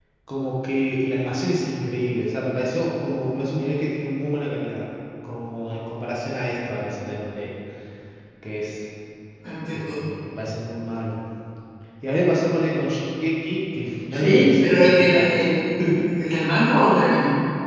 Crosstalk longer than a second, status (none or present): present